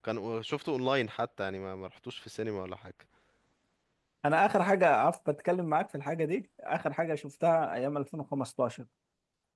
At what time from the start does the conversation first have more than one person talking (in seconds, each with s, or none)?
none